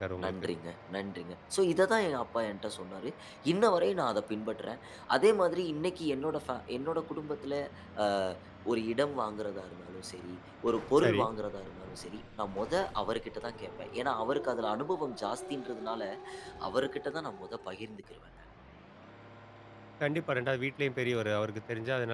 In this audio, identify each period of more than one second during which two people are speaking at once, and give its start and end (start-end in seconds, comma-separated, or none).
none